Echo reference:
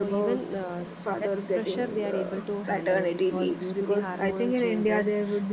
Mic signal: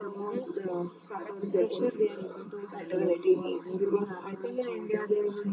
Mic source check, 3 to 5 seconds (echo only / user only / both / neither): echo only